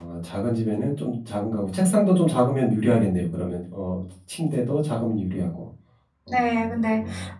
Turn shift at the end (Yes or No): Yes